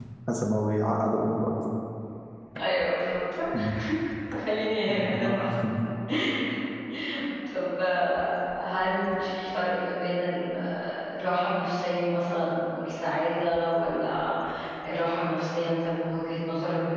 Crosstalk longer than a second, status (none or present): none